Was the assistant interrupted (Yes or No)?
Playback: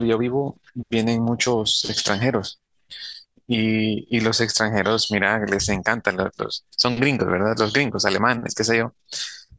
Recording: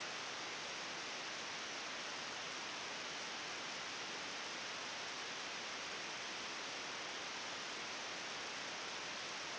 No